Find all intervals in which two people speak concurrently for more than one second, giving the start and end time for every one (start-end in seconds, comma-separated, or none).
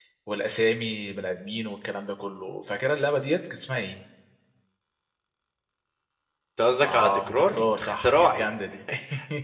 6.8-8.4